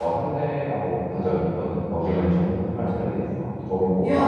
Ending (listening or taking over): taking over